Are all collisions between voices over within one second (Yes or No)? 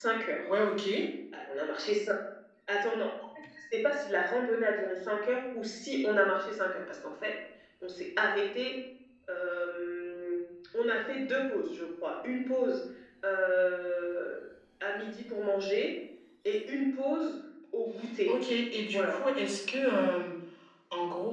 Yes